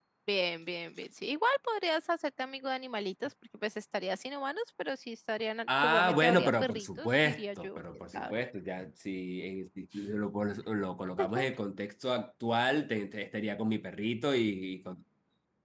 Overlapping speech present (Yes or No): Yes